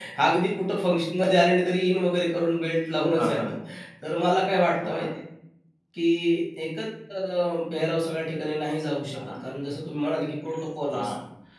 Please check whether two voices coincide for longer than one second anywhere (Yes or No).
No